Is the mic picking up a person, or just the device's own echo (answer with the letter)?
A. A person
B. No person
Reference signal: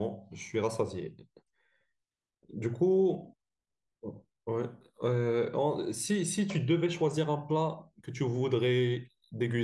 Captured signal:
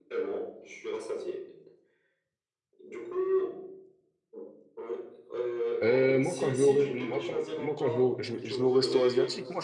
A